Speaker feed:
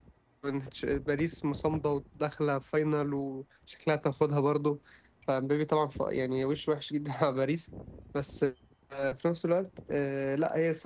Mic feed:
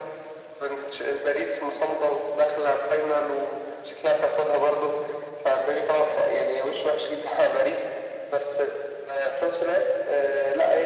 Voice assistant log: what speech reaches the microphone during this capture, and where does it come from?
echo only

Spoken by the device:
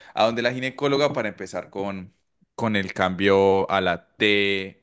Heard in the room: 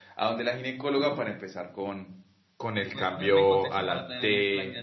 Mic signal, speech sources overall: both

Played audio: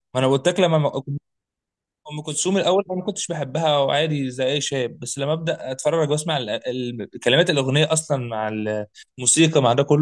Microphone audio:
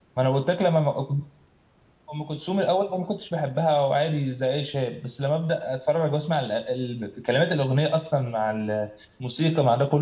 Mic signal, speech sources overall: echo only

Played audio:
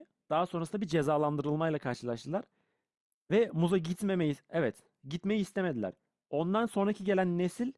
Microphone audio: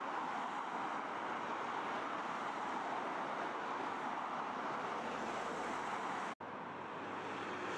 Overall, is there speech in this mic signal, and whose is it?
neither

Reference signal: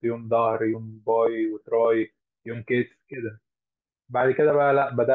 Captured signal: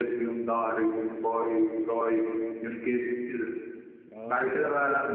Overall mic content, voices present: both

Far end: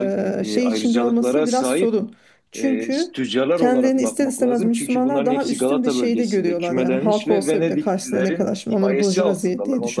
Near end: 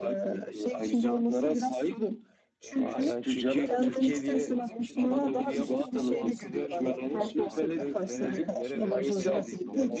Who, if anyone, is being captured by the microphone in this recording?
both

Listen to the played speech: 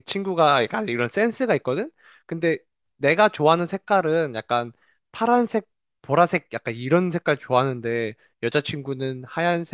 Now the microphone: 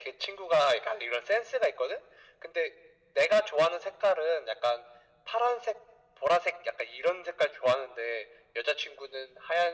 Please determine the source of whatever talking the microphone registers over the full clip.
echo only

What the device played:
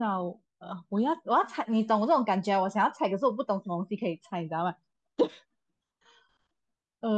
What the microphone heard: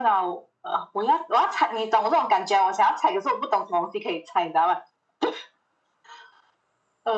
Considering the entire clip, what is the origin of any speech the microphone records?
echo only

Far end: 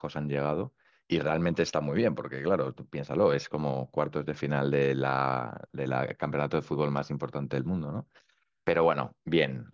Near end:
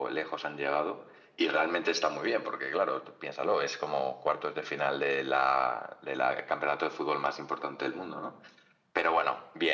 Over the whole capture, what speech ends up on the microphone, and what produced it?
echo only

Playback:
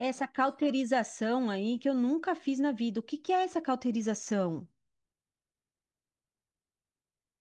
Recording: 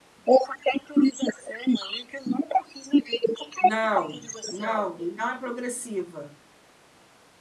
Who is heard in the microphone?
both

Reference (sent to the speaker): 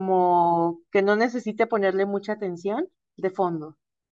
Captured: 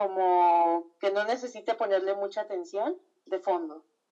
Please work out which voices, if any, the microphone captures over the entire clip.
echo only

